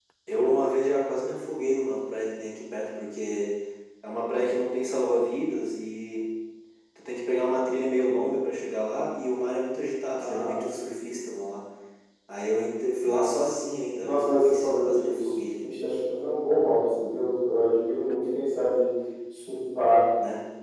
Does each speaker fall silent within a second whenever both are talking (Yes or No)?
No